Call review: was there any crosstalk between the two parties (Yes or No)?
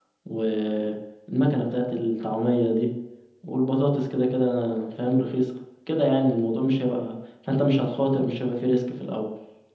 No